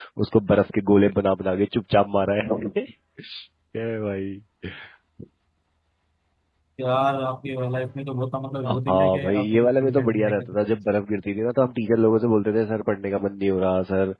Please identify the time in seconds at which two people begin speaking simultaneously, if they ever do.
8.6 s

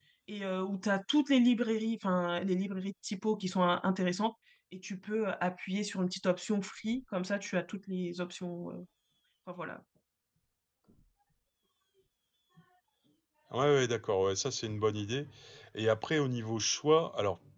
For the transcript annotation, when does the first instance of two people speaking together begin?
none

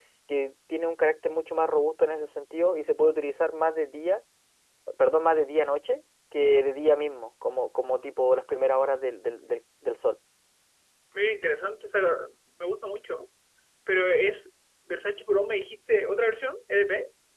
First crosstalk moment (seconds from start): none

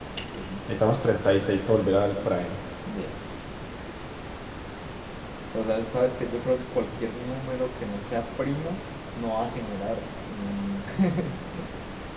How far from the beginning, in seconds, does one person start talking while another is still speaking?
none

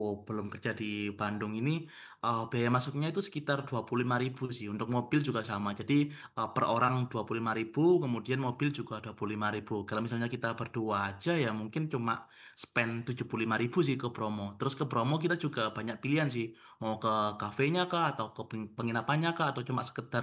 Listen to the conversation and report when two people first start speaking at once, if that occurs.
none

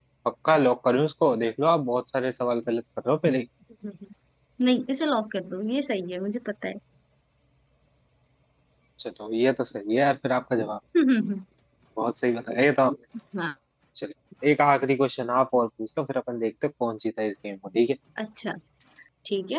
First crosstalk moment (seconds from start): none

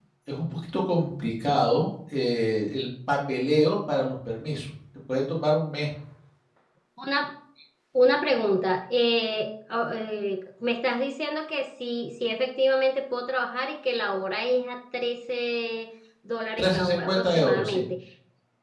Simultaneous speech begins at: 16.6 s

